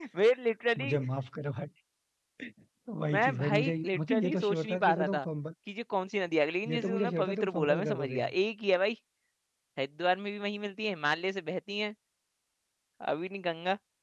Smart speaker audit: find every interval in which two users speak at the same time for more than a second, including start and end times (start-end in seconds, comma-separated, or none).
3.1-5.2, 6.7-8.2